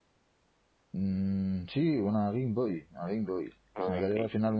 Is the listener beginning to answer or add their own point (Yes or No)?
No